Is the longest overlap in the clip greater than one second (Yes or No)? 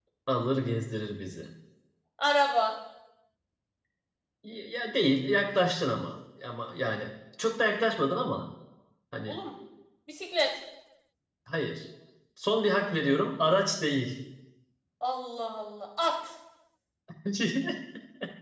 No